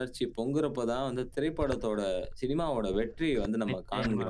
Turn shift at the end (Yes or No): Yes